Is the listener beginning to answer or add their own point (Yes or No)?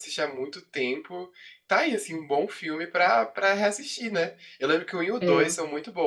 No